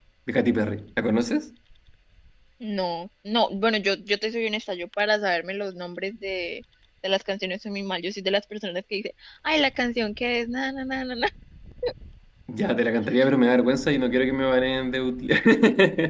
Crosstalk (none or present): none